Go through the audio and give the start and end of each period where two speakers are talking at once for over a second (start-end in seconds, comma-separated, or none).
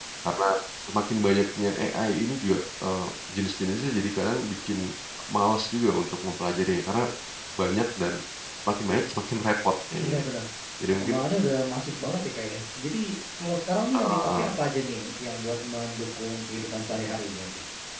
none